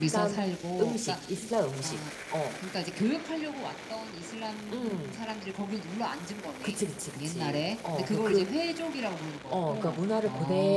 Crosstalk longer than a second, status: present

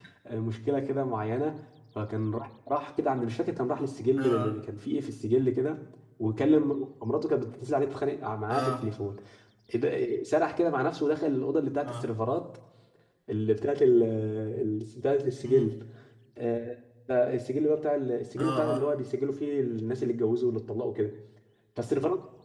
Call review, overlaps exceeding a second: none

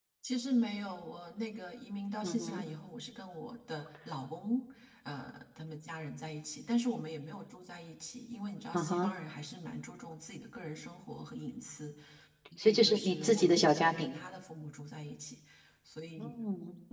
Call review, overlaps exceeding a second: present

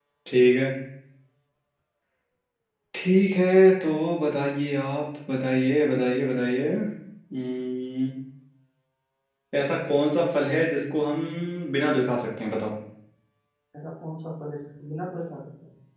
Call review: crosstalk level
none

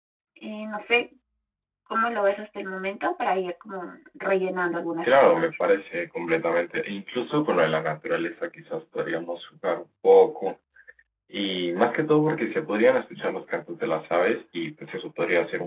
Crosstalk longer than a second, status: none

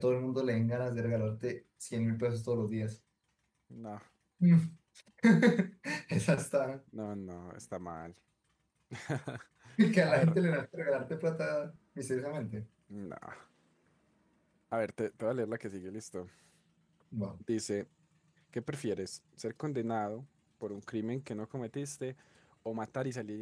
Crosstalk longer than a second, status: none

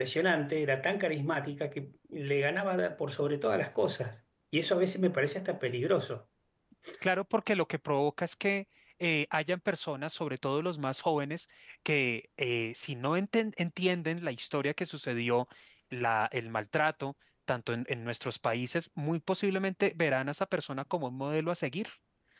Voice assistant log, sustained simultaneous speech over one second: none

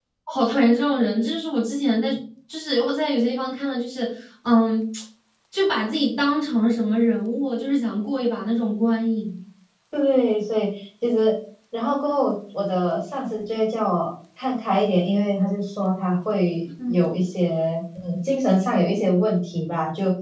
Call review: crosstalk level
none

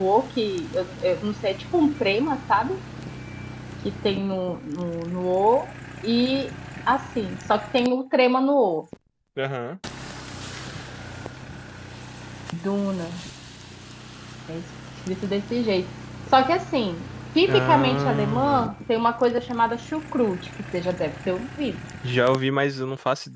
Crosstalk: present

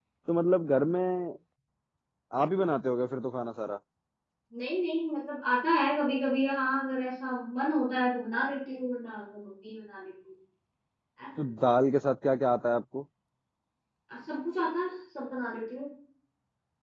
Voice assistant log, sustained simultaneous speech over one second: none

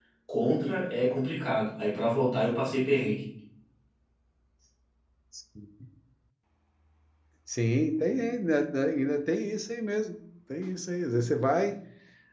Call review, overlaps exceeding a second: none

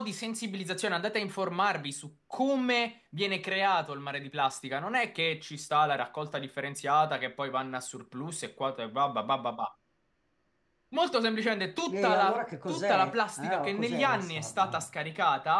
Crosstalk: present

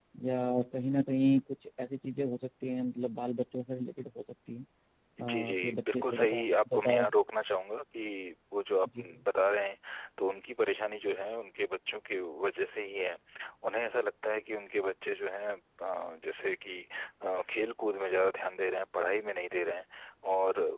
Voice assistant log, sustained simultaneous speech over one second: present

